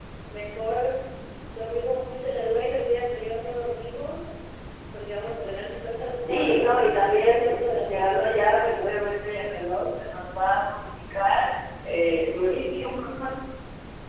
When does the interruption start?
6.3 s

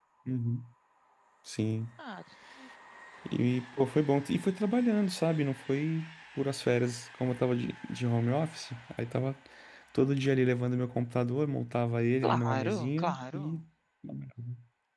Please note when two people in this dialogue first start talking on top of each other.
12.2 s

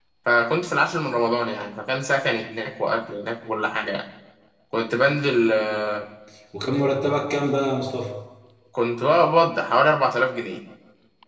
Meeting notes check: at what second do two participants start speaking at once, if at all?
none

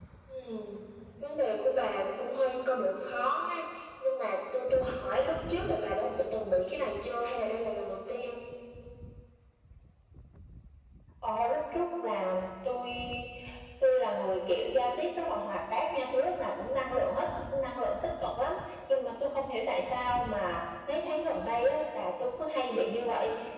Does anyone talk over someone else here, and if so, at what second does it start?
none

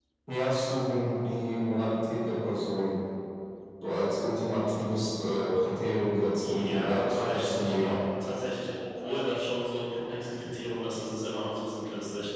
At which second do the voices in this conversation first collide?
6.4 s

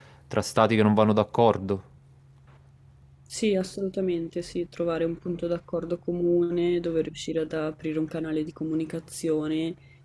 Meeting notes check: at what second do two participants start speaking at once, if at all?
none

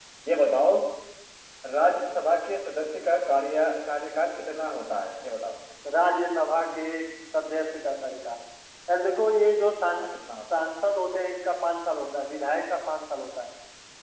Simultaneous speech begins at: none

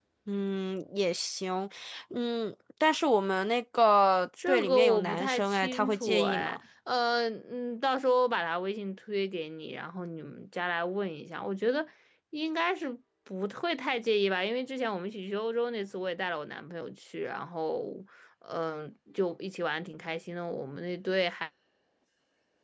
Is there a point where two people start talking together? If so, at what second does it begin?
4.3 s

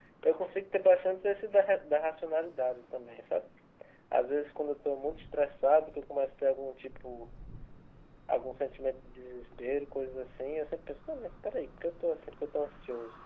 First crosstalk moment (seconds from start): none

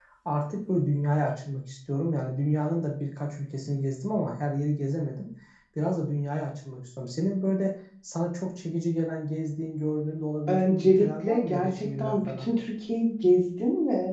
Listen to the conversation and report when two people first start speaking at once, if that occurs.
10.5 s

